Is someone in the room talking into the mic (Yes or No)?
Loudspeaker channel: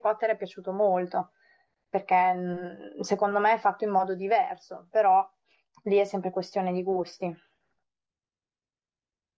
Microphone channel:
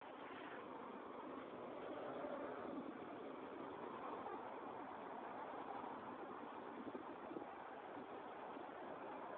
No